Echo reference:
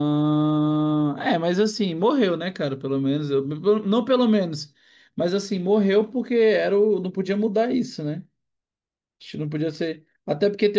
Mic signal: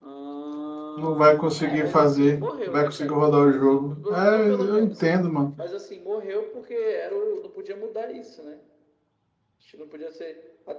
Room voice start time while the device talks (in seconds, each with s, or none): 0.9 s